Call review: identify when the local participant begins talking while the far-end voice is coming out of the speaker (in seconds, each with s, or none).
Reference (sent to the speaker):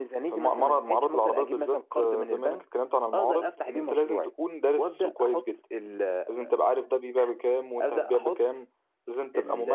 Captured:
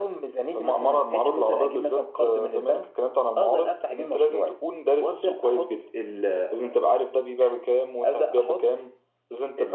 none